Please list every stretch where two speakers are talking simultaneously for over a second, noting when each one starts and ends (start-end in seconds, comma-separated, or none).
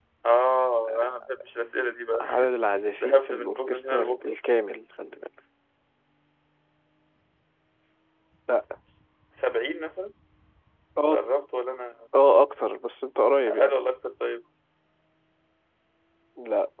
3.0-4.3